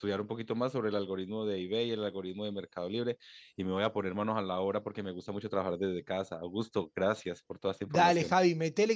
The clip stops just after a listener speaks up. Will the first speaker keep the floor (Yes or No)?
No